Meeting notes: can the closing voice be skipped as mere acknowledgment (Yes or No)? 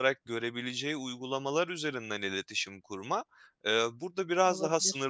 Yes